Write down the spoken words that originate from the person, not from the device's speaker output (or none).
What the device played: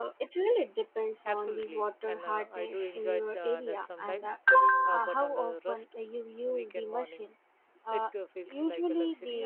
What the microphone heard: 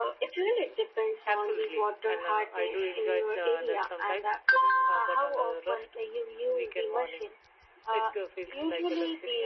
none